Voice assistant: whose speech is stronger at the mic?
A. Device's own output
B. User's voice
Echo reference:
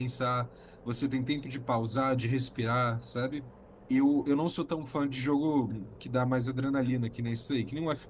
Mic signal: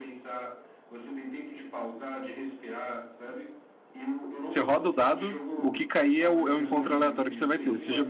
B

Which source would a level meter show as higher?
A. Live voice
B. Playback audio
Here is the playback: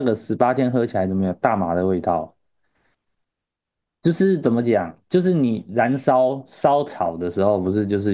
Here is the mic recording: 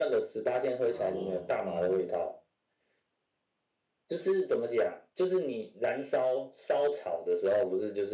B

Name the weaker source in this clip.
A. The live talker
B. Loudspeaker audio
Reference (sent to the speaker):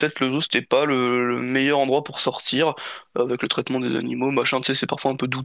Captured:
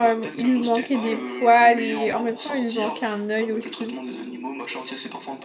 B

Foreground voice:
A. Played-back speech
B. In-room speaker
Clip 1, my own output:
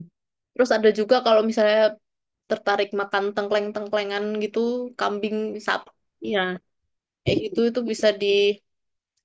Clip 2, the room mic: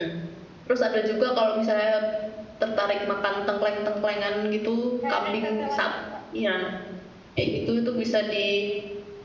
A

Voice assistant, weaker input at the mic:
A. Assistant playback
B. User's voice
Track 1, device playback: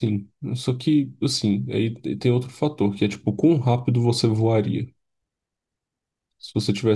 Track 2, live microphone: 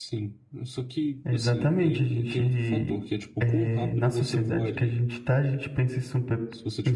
A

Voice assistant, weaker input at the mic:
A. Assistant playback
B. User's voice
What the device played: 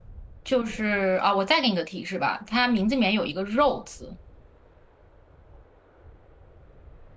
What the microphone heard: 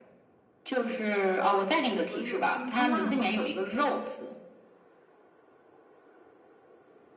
B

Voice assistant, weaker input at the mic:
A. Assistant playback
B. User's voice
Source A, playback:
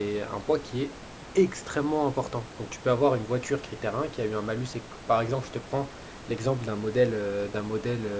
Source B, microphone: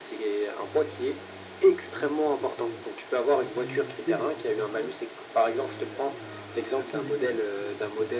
B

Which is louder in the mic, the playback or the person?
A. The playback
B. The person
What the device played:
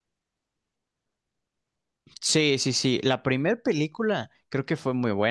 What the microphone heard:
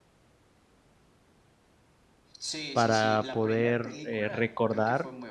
B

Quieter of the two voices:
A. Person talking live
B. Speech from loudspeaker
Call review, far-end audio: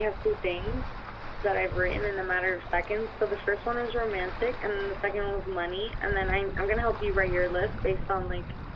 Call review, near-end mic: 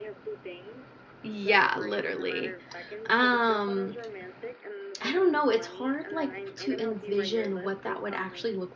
B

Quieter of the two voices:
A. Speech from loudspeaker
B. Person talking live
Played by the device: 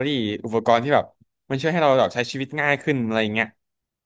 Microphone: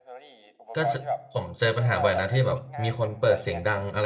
A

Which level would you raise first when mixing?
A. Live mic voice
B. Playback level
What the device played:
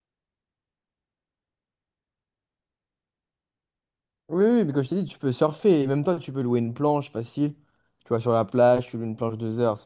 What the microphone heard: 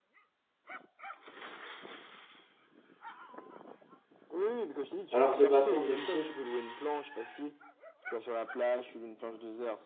B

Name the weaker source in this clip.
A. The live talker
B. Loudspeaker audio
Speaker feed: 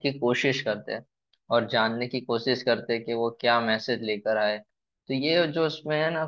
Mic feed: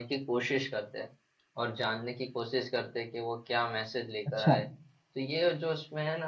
B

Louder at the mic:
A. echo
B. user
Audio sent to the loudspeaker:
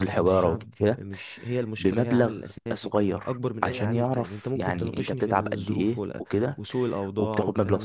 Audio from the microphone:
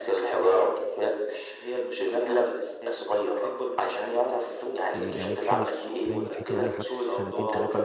A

